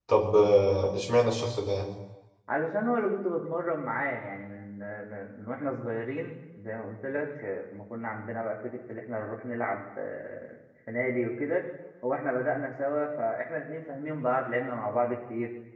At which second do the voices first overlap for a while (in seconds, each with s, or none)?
none